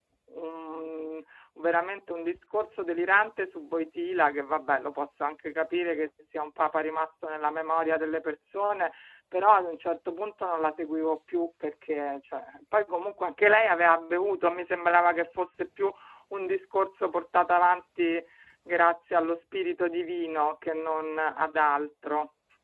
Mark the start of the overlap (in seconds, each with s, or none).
none